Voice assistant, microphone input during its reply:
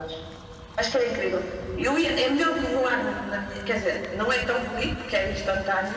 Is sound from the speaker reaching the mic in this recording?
Yes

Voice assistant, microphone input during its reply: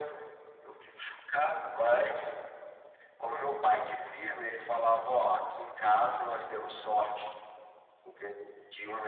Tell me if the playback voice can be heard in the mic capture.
Yes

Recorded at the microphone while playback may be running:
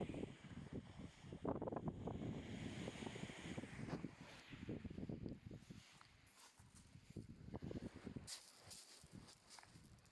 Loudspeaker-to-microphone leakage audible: No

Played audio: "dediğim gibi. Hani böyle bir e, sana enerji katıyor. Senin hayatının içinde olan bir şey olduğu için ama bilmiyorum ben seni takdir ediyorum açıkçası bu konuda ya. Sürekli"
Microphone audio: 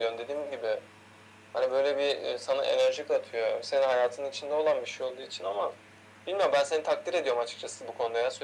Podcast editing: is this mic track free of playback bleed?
No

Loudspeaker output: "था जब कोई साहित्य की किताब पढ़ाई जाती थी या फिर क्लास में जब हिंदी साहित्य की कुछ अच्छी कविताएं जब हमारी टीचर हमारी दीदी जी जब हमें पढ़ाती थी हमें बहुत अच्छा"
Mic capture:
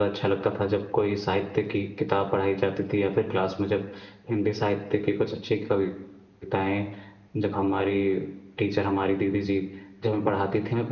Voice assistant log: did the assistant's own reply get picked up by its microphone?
Yes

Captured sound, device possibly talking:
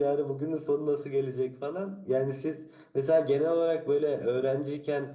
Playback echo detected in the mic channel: Yes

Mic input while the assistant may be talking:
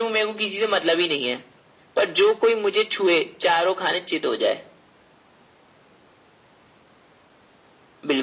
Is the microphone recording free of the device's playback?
No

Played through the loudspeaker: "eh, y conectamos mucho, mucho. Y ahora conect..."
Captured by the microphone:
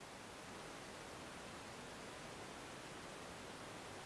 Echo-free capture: Yes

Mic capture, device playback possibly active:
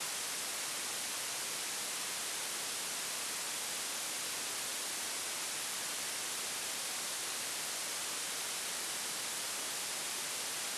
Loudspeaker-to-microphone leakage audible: No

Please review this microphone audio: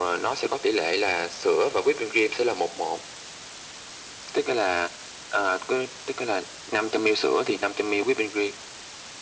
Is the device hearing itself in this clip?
Yes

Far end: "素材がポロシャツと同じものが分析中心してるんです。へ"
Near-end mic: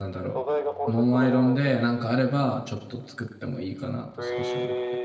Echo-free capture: No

